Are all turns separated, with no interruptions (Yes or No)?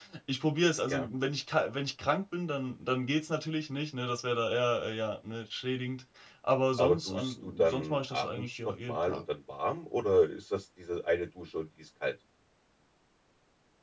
No